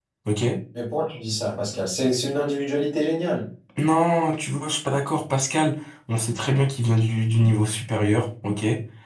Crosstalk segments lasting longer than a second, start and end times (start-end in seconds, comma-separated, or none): none